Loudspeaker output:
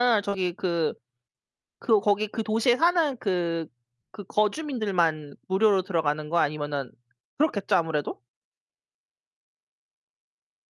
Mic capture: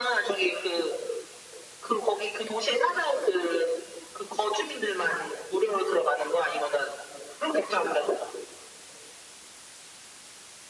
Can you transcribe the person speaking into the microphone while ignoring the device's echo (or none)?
none